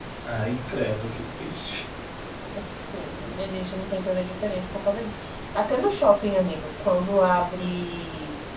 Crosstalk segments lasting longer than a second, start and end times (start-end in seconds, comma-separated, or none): none